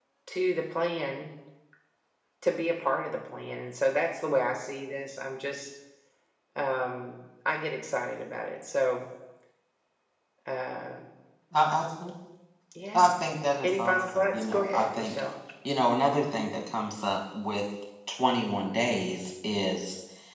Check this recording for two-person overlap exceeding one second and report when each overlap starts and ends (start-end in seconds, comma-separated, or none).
13.6-15.2